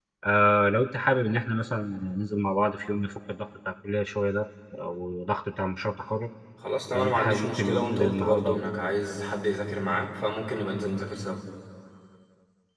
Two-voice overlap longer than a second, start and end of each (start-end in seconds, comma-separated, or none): 6.9-8.7